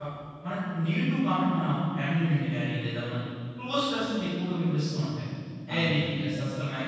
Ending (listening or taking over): listening